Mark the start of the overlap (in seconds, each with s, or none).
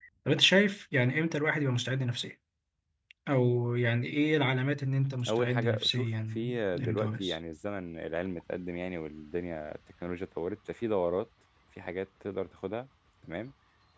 5.2 s